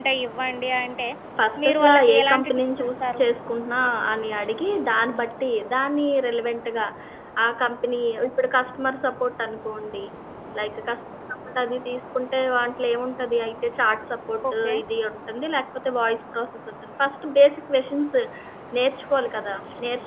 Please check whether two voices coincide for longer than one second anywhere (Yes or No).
Yes